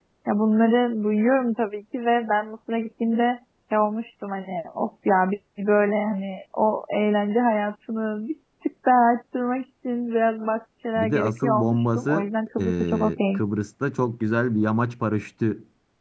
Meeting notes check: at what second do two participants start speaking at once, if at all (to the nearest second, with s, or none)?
11 s